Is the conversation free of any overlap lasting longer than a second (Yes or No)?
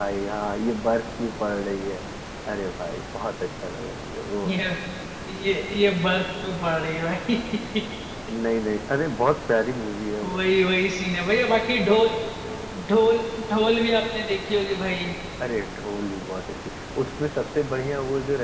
Yes